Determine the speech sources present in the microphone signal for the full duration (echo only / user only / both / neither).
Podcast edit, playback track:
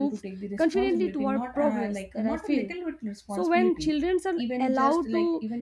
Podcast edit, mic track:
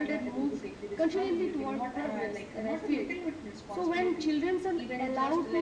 echo only